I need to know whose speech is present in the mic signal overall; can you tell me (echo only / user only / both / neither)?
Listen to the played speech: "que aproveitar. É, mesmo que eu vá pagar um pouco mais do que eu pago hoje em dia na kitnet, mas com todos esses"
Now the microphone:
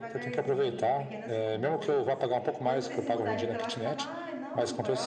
both